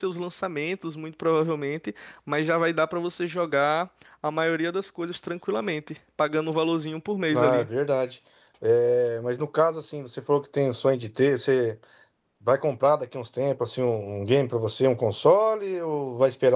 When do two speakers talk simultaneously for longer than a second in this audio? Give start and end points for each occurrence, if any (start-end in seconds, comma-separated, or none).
none